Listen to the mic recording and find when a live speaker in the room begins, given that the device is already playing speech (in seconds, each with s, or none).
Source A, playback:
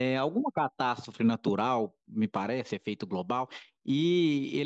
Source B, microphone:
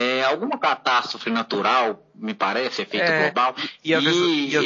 3.0 s